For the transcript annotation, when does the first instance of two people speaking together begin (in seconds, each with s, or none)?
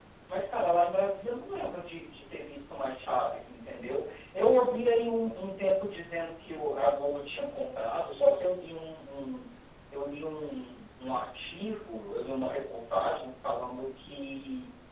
none